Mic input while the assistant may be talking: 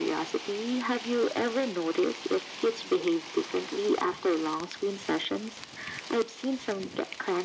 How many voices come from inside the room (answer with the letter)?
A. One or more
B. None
B